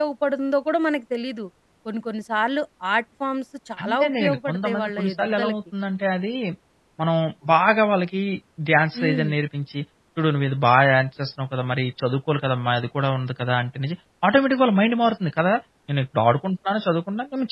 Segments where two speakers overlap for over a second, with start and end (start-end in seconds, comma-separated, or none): 3.8-5.5